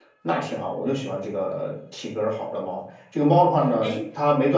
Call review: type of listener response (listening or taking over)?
listening